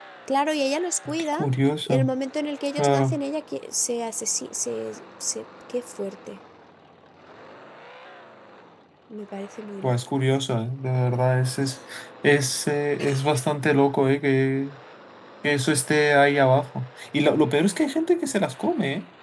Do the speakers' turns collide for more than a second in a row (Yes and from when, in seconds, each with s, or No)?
No